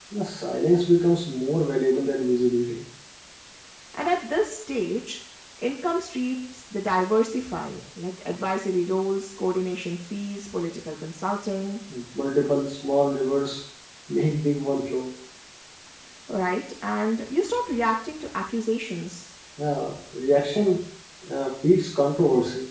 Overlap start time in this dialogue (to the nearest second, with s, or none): none